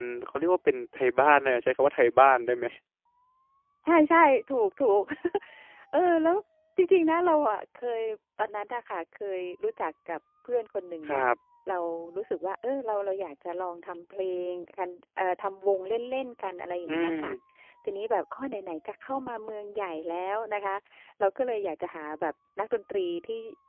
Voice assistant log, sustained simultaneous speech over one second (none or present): none